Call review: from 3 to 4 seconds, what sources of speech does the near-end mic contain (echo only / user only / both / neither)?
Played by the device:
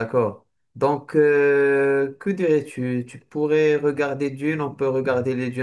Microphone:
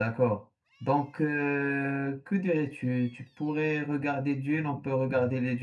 echo only